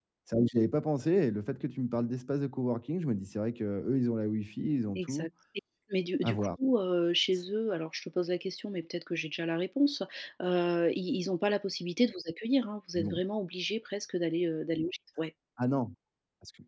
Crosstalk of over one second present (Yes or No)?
No